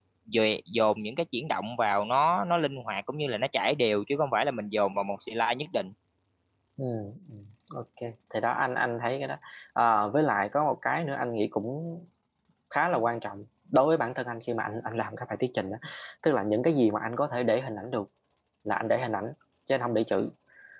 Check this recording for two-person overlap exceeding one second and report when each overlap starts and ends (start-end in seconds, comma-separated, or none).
none